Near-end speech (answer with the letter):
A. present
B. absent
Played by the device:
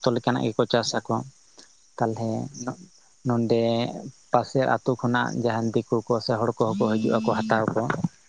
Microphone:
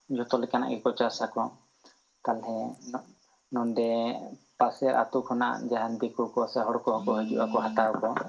B